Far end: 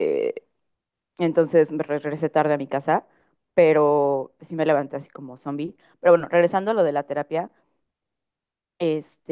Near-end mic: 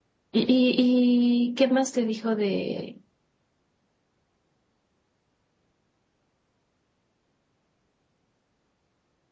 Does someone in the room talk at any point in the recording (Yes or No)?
Yes